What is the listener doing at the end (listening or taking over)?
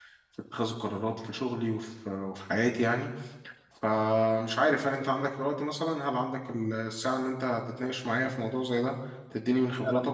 listening